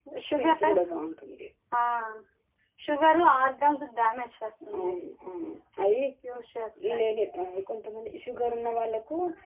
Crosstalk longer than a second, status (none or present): none